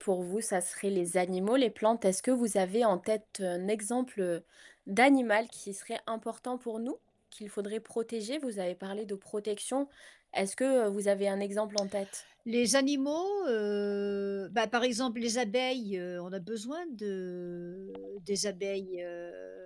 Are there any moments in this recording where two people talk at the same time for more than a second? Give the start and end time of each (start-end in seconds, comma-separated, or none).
none